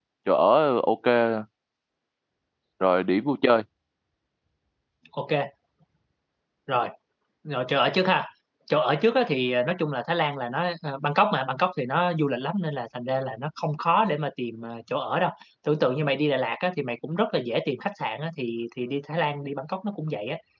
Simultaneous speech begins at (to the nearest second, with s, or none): none